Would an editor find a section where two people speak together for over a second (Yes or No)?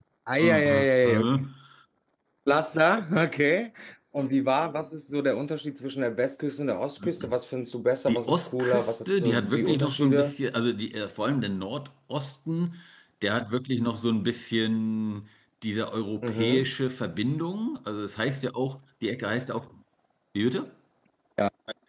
Yes